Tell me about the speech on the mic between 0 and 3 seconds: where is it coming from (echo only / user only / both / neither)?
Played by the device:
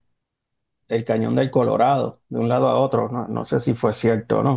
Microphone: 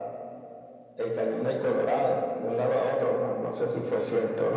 echo only